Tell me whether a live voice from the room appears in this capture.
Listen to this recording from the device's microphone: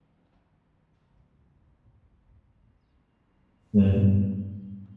Yes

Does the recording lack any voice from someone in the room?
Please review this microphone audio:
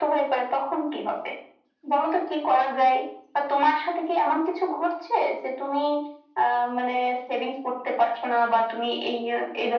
Yes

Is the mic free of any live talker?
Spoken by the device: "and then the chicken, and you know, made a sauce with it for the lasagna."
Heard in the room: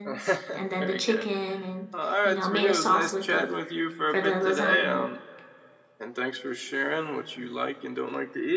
No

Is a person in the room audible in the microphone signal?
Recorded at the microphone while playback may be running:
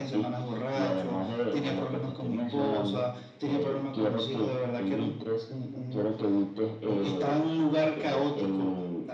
No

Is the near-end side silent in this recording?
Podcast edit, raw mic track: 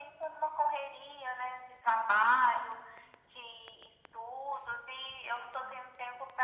Yes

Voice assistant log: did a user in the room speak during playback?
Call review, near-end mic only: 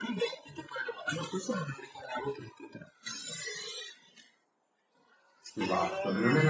Yes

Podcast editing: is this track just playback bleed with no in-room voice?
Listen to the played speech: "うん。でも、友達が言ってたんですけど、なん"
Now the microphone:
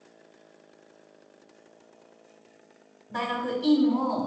No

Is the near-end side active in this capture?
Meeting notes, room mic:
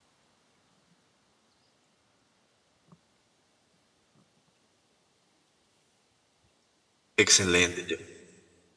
Yes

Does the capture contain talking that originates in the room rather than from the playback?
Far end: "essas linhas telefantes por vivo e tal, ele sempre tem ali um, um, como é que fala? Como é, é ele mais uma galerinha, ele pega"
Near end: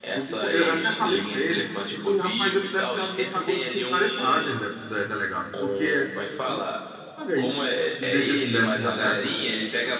Yes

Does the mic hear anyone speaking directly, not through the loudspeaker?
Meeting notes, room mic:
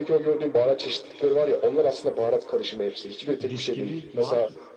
Yes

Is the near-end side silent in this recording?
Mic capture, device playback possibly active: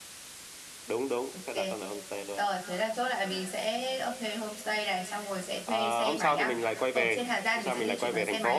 No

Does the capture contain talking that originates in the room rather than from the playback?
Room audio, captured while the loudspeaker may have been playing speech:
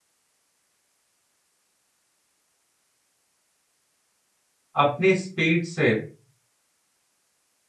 Yes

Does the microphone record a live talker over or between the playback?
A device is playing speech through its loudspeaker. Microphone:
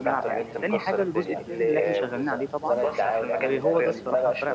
Yes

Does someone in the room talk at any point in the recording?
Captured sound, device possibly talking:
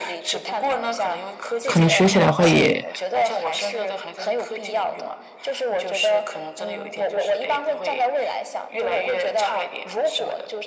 Yes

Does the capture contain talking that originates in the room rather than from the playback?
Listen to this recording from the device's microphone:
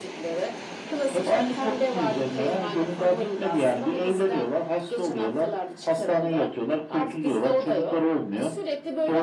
No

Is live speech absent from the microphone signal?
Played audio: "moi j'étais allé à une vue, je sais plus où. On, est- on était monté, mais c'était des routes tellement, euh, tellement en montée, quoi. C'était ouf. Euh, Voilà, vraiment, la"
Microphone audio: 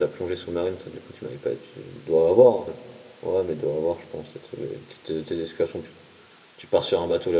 No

